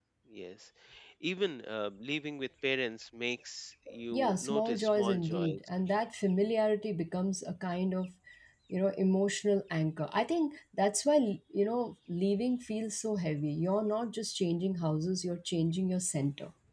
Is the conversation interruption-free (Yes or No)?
No